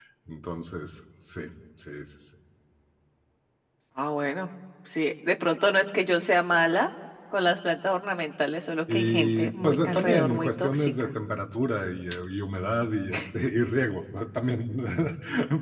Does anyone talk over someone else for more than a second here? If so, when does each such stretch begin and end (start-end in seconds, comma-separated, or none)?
8.9-11.1